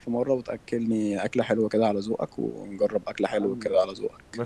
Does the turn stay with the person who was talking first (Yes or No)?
No